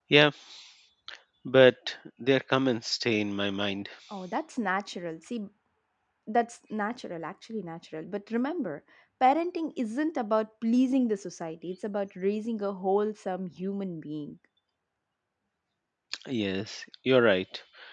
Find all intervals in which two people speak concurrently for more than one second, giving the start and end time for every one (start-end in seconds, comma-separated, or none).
none